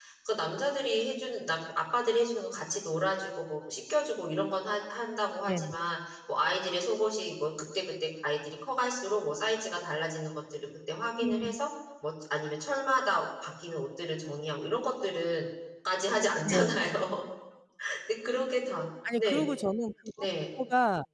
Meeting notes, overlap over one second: none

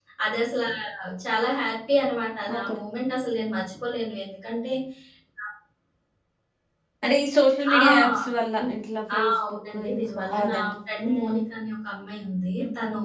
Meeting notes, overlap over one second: present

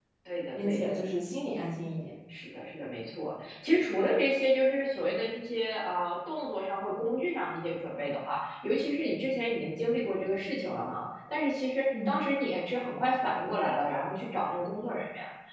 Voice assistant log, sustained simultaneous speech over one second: none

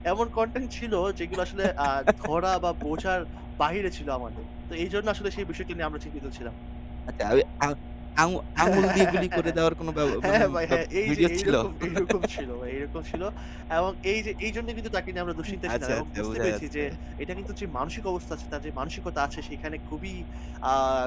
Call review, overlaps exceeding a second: present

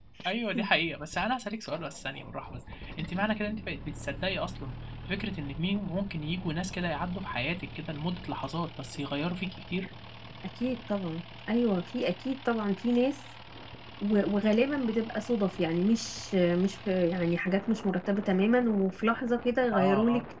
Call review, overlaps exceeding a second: none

